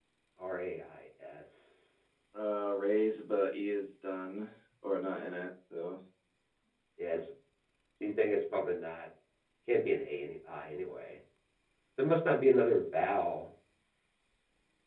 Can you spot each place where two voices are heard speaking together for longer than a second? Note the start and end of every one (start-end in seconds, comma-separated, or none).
none